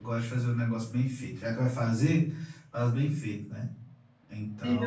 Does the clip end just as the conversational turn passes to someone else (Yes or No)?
Yes